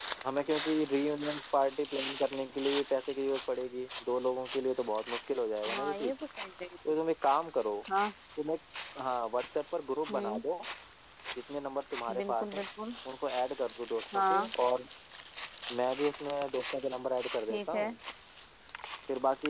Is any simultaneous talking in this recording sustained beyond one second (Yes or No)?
No